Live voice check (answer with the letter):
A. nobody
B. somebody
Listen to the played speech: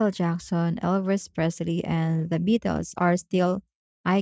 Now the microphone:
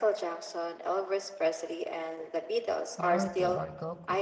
B